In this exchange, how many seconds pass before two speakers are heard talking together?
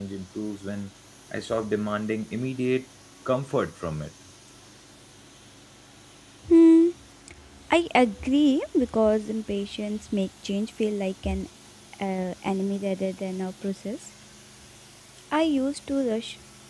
none

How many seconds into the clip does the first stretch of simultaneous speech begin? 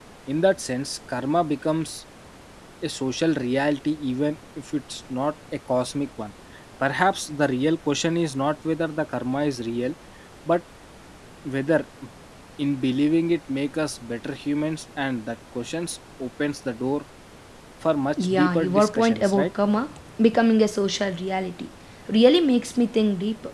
18.2 s

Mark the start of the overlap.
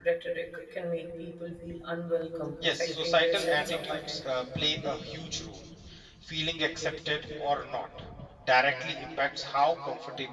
2.6 s

